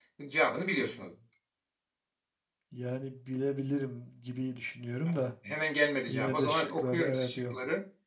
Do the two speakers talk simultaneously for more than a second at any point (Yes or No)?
Yes